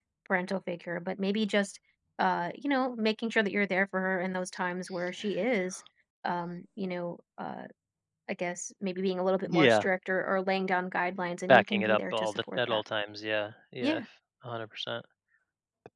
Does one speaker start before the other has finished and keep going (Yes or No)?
Yes